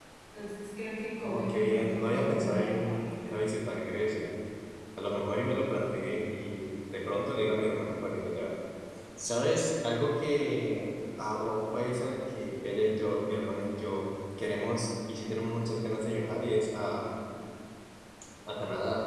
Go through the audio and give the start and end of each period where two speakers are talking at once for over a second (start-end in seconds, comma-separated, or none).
1.2-3.0